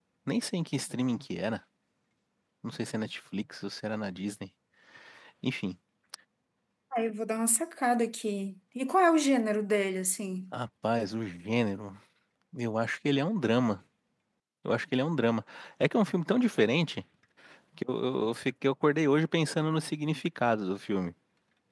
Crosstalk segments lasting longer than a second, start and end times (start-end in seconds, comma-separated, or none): none